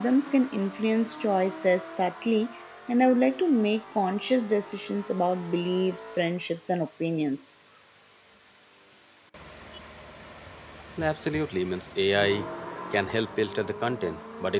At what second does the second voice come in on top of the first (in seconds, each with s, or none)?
none